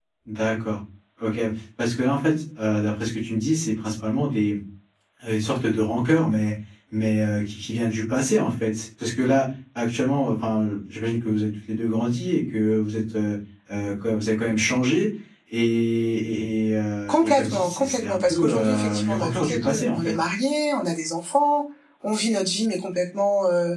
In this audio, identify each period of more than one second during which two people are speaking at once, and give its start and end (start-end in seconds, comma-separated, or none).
17.1-20.0